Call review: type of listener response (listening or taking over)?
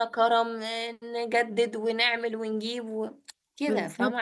taking over